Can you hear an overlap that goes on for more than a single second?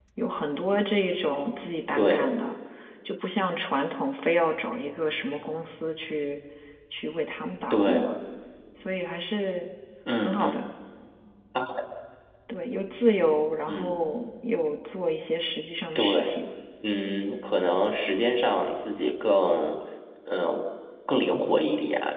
No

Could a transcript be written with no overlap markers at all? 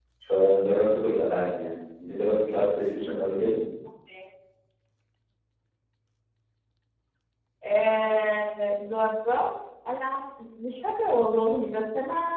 Yes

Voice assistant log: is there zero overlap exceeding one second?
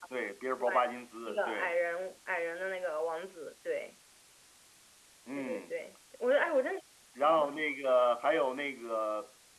Yes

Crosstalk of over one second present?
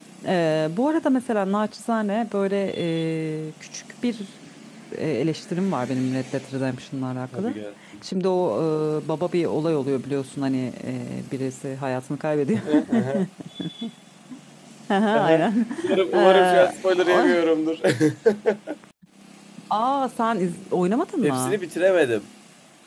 Yes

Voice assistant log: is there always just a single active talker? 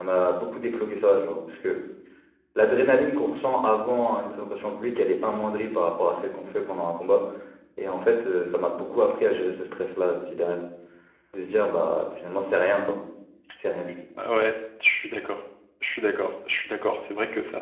Yes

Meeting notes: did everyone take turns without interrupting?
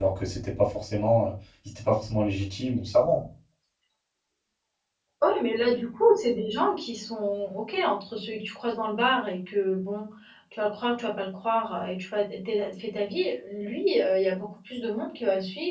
Yes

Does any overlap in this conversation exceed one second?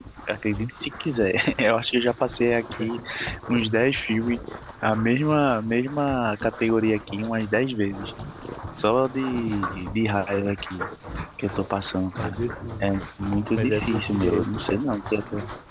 Yes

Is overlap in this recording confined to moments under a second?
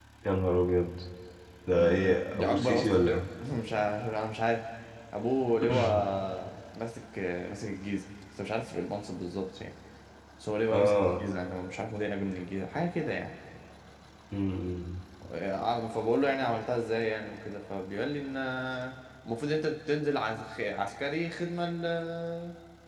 No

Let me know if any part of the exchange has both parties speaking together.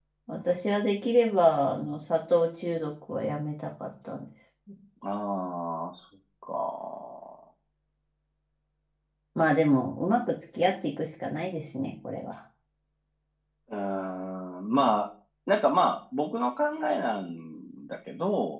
No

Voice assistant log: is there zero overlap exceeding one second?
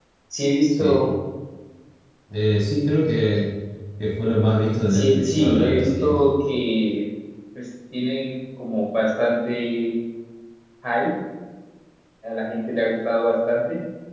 No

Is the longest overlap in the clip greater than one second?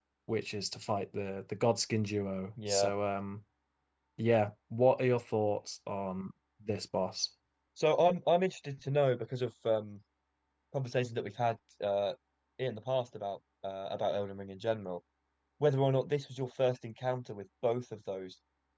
No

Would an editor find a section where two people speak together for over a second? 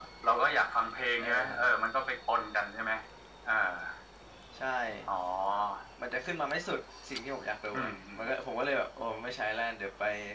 No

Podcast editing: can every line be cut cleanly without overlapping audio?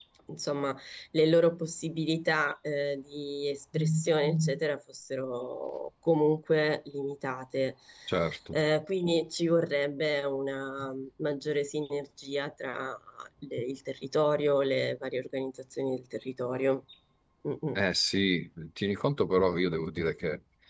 Yes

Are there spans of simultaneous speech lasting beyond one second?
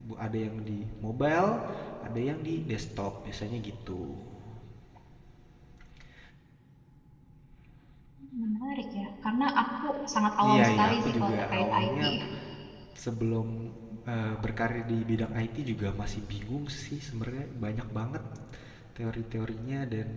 Yes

